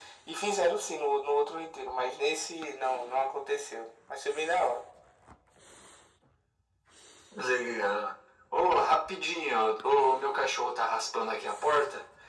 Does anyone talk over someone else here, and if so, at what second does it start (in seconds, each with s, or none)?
none